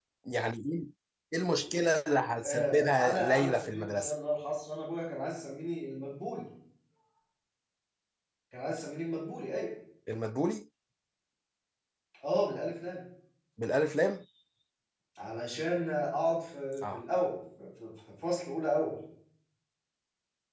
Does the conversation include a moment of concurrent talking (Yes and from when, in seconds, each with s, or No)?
Yes, from 2.4 s